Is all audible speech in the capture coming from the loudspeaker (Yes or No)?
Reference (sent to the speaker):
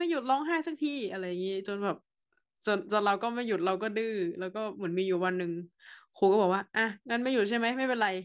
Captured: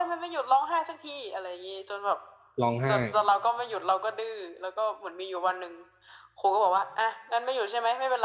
No